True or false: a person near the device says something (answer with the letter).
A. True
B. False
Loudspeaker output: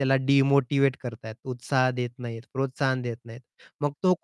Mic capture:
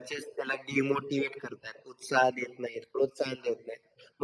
B